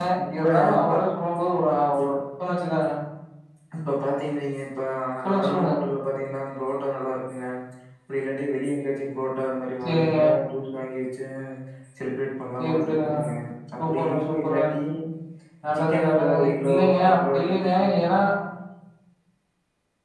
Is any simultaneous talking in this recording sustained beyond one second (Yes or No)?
Yes